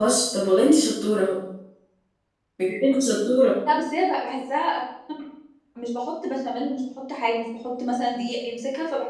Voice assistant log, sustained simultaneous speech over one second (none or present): none